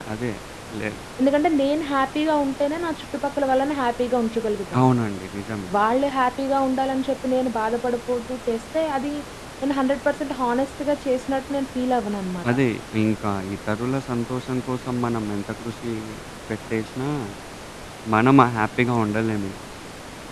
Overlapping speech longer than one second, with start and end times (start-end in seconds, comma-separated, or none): none